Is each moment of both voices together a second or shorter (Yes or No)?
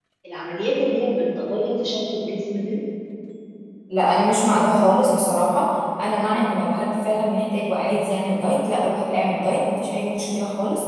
Yes